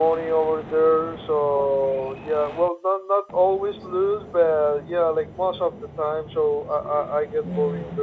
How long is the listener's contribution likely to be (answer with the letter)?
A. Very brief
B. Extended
A